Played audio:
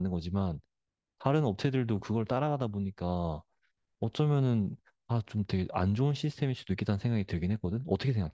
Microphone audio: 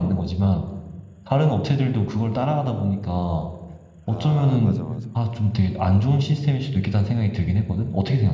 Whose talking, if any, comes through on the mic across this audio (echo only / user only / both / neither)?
both